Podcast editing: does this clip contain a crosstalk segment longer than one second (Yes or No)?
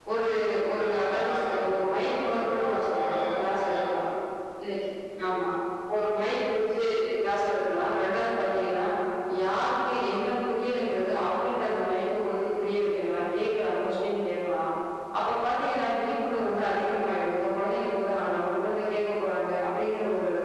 Yes